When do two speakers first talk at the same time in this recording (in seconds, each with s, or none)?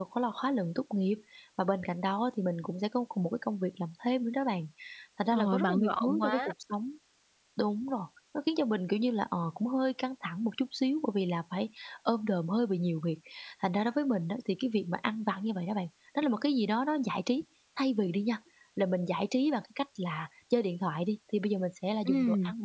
5.3 s